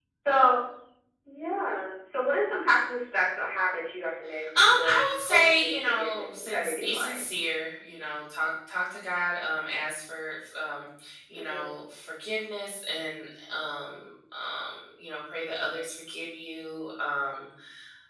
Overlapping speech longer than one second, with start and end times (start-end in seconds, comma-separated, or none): 4.5-7.2